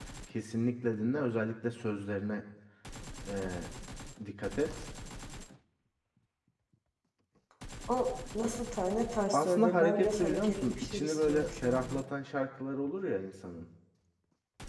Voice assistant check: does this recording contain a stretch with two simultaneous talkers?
Yes, from 9.3 s

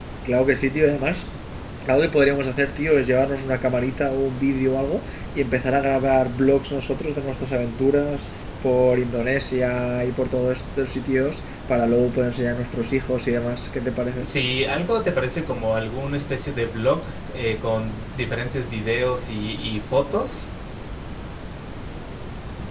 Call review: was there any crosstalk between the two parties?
No

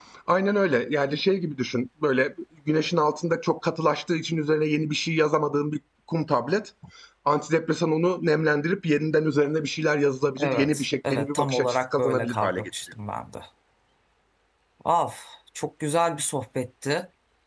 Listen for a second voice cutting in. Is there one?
Yes, from 10.4 s

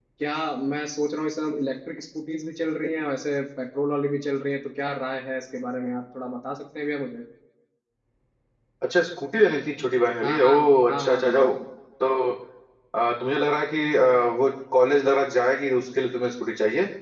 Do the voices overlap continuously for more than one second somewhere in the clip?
Yes, from 10.2 s

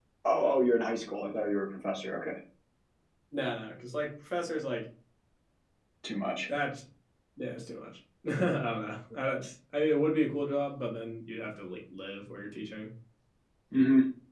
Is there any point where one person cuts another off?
No

